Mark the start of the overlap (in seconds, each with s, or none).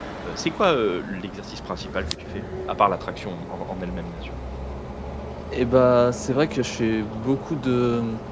none